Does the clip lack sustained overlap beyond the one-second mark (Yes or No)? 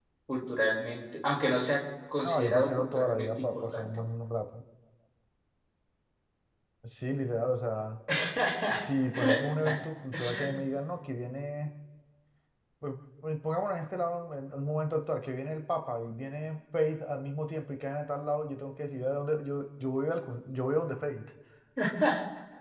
No